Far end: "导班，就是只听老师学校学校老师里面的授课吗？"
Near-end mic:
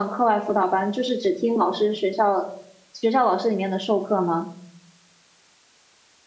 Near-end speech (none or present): none